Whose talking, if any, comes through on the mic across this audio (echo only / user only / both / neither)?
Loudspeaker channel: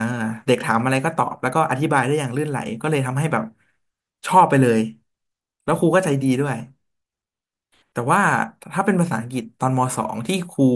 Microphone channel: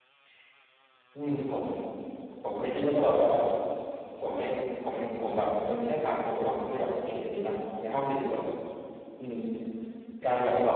user only